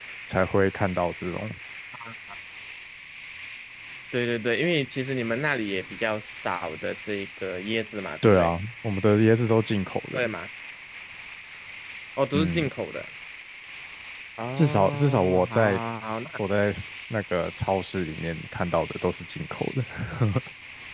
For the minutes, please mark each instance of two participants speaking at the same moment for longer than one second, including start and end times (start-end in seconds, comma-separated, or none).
14.5-15.8